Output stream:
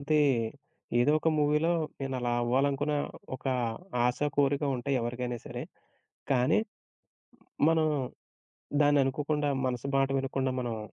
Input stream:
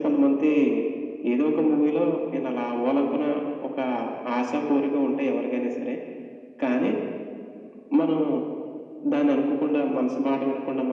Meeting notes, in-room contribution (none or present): none